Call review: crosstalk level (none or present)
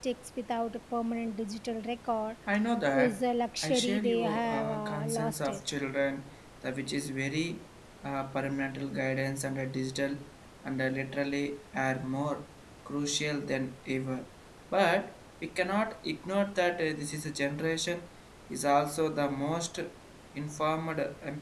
present